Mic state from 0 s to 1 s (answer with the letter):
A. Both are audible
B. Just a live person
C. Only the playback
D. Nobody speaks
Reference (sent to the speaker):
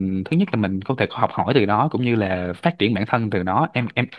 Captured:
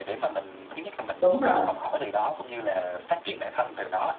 C